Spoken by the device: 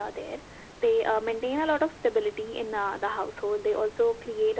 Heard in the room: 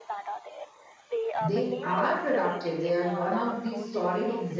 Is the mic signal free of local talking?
No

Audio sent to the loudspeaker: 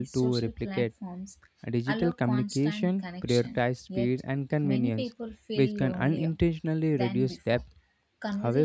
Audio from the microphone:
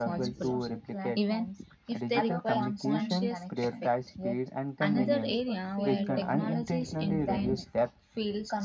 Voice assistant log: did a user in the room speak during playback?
Yes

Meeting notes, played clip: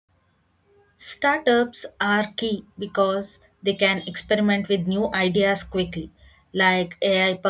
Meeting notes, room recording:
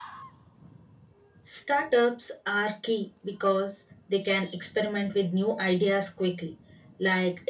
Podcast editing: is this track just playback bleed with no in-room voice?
Yes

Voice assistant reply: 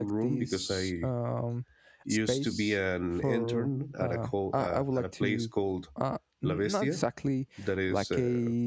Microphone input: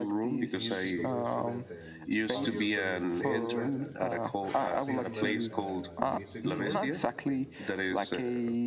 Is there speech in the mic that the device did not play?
Yes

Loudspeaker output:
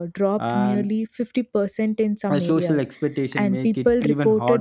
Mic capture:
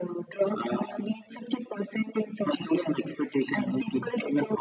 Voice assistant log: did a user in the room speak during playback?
No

